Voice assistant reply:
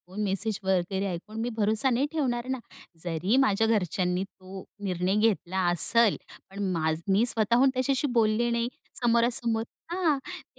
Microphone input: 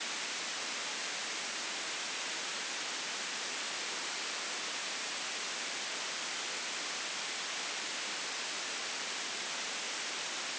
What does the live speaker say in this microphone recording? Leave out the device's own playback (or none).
none